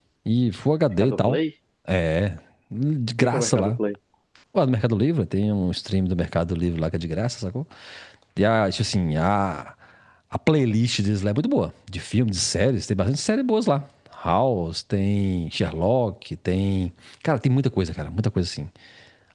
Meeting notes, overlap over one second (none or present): none